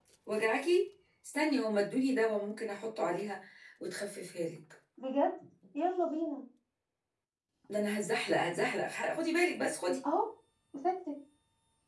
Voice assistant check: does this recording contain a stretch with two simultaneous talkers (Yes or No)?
No